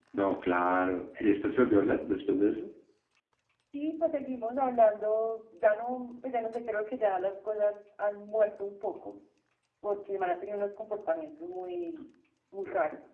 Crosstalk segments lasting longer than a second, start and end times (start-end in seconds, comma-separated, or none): none